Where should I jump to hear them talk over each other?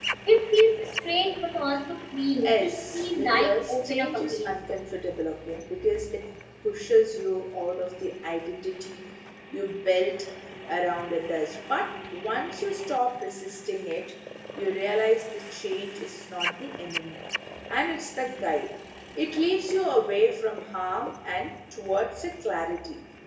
2.4 s

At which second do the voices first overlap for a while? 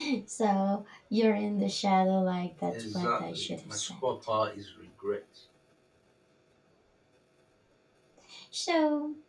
2.7 s

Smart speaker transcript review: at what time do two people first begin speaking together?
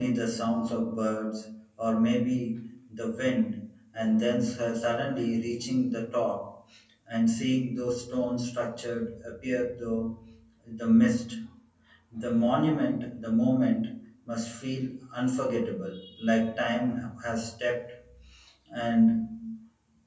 none

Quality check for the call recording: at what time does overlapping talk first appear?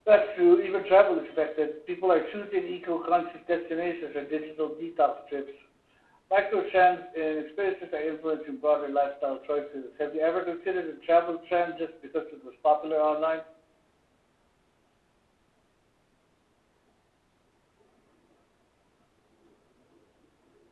none

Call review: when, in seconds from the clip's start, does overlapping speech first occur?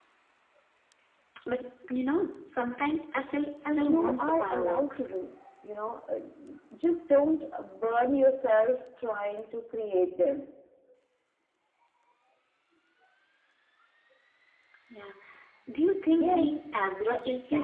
3.6 s

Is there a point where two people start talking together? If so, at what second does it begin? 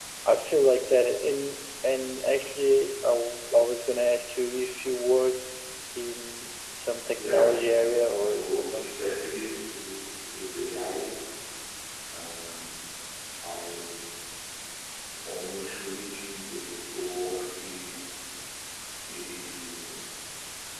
7.2 s

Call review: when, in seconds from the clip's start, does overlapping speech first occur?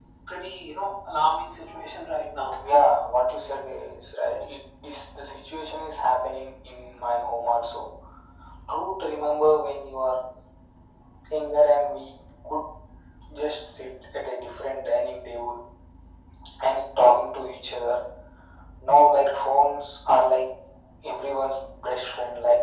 none

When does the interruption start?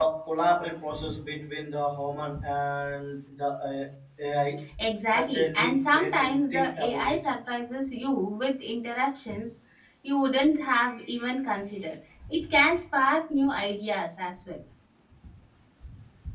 5.1 s

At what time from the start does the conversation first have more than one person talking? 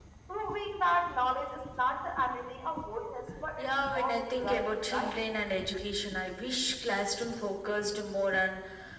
3.6 s

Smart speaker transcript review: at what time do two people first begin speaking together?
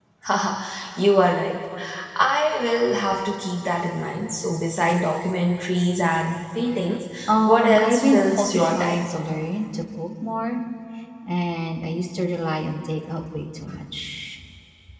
7.5 s

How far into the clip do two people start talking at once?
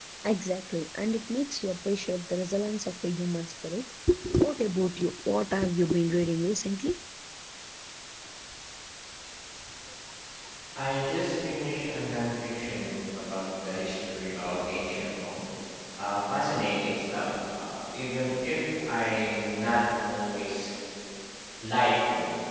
none

